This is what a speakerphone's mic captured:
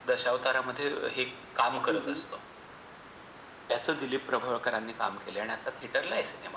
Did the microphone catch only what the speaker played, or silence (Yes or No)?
No